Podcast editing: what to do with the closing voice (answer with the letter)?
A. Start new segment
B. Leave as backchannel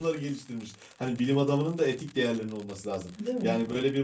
B